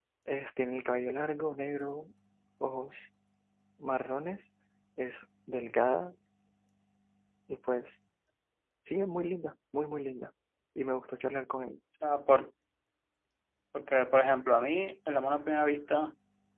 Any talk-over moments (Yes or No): No